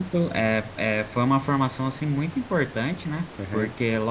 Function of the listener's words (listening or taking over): listening